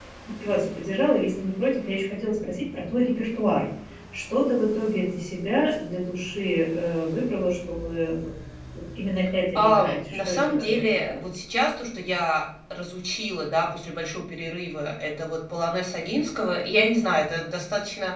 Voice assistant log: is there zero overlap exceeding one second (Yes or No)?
No